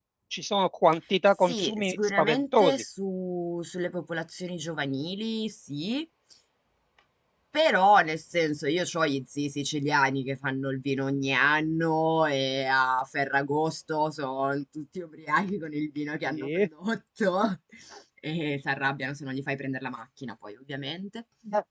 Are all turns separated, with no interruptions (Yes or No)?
No